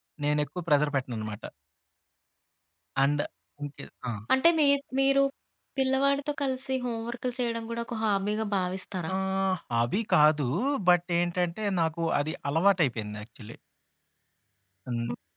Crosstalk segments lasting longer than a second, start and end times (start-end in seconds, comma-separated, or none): none